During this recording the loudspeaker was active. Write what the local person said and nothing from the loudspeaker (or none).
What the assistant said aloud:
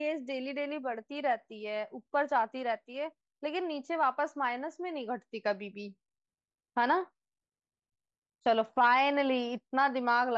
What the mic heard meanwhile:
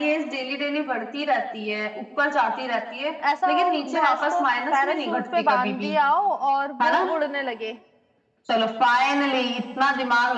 ऐसा हो भैंस को पैराशूट पे बांध दिया हो और वो उड़ने लगे